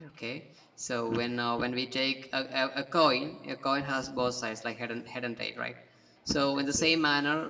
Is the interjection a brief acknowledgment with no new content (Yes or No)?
Yes